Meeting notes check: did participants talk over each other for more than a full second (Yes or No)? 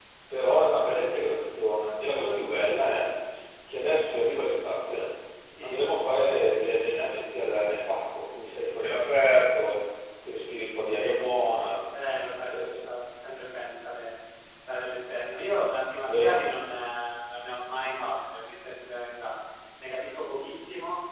No